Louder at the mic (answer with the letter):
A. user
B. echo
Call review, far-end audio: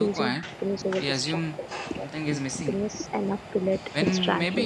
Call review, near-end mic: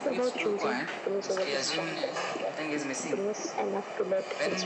B